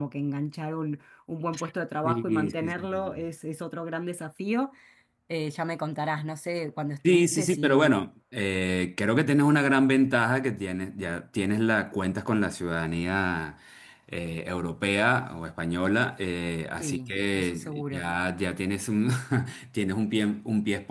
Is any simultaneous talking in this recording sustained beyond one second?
Yes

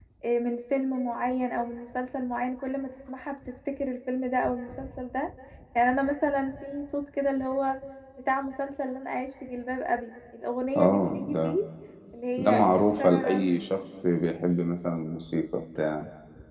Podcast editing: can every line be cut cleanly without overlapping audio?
No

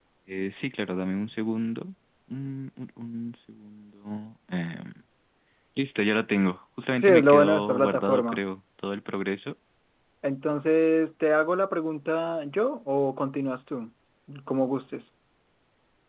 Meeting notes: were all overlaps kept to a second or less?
No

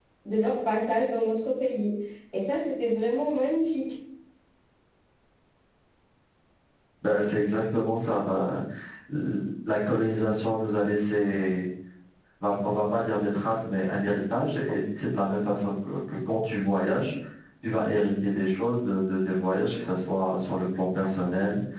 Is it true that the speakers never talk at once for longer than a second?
Yes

